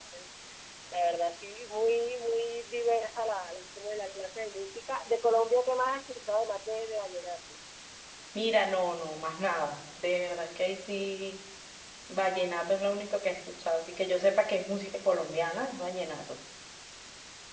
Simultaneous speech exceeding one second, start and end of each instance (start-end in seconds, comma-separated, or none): none